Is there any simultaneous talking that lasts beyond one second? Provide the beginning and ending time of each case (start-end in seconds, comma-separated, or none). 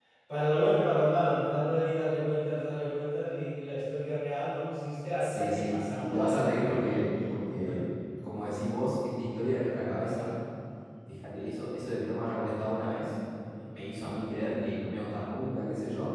5.2-7.1